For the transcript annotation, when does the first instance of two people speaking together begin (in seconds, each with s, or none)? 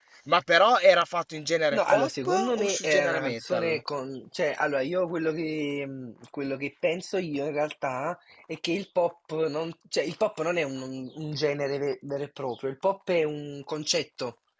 1.7 s